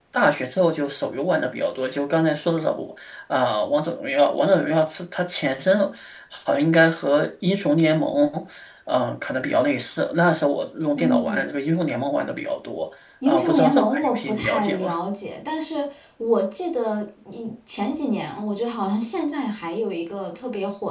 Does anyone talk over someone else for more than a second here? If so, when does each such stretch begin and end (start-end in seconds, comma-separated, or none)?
13.2-14.9